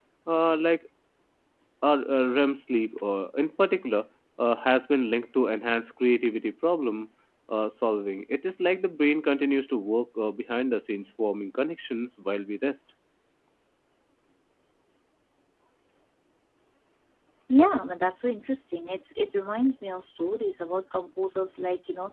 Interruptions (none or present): none